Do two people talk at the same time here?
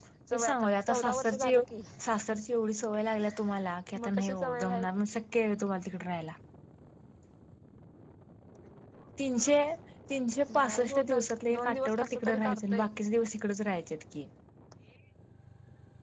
Yes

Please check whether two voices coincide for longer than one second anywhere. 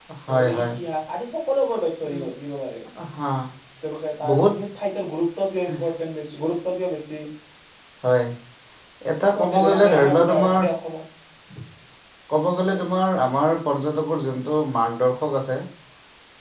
Yes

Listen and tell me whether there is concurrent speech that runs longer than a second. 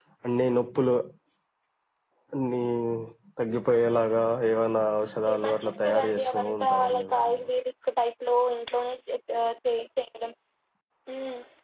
Yes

